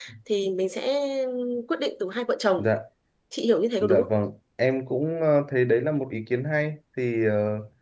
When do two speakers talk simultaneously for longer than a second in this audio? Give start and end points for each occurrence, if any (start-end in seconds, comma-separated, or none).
none